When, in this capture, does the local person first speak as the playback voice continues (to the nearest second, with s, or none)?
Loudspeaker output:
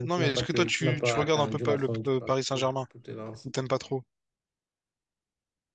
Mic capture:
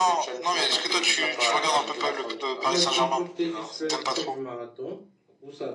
3 s